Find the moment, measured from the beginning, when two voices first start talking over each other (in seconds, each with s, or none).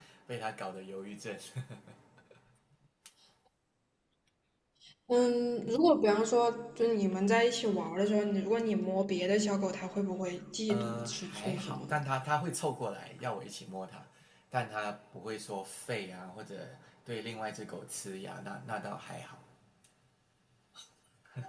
10.7 s